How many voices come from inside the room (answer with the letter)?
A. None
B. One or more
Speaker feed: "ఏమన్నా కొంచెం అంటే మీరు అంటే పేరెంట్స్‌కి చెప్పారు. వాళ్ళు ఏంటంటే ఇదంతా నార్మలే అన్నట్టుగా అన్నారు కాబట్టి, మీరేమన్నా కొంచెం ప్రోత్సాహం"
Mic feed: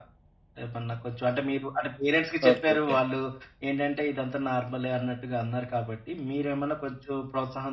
B